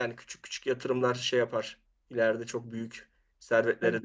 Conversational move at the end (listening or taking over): taking over